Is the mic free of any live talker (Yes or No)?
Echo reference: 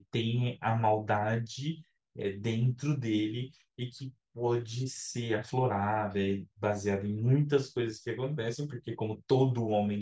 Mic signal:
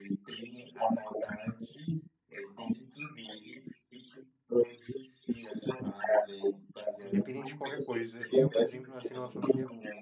No